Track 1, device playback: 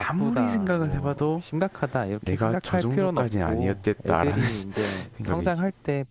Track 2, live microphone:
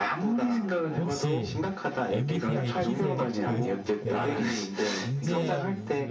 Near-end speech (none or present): present